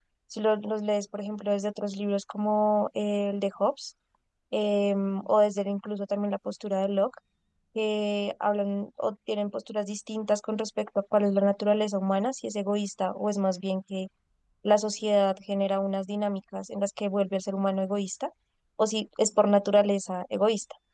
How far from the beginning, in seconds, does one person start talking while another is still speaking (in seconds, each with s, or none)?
none